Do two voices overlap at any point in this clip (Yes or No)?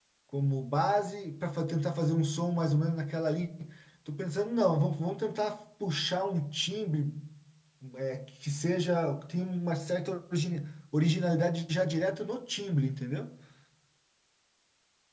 No